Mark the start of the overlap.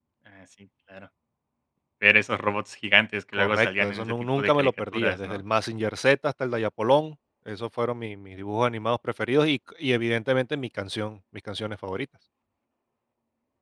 3.3 s

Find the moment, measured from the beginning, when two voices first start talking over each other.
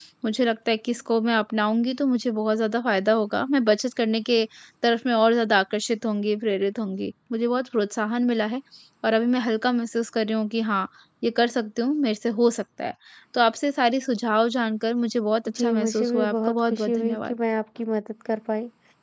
15.5 s

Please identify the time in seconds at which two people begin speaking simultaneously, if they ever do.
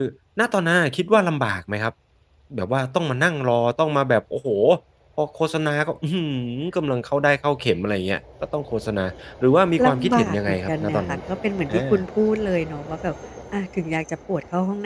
9.8 s

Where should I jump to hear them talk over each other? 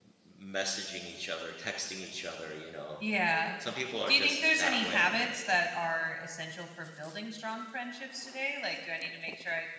4.1 s

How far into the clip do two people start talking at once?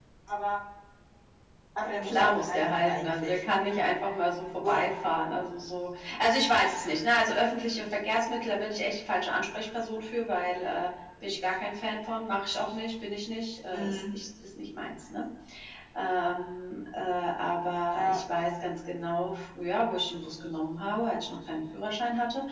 2.0 s

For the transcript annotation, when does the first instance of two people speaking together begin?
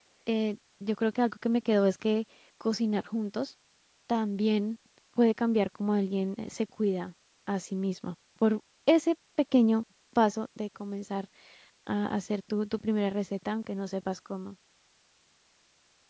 none

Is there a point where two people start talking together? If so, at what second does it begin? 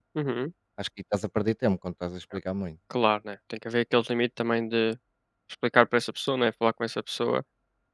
none

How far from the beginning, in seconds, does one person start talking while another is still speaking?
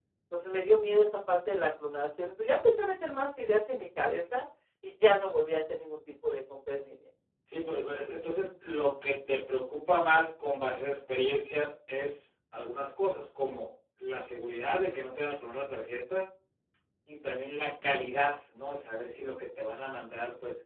none

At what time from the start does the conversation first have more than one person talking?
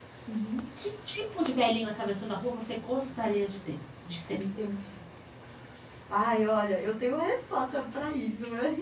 none

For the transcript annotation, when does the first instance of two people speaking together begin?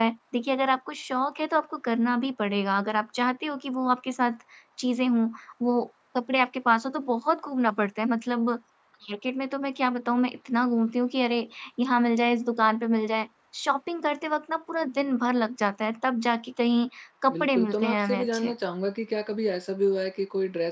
17.3 s

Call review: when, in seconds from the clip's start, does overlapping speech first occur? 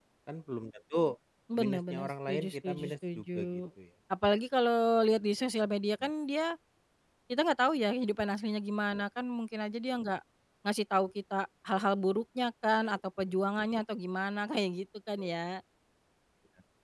1.6 s

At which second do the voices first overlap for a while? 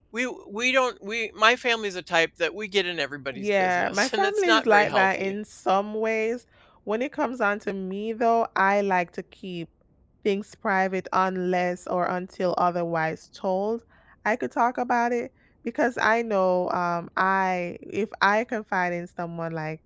3.3 s

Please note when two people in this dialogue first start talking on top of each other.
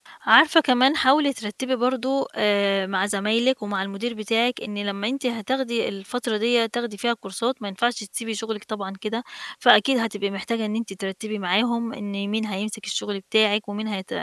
none

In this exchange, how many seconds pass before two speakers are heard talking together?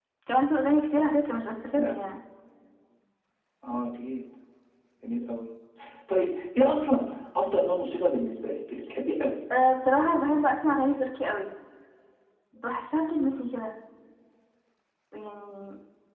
none

